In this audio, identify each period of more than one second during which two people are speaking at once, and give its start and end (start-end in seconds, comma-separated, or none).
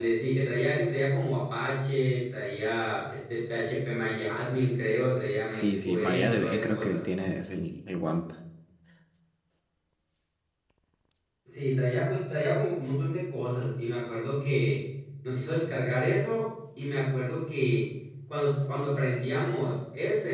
5.5-7.1